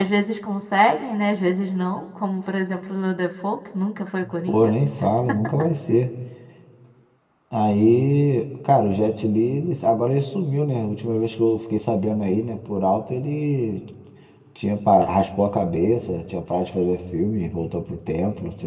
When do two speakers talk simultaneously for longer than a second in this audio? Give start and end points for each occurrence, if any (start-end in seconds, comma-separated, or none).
none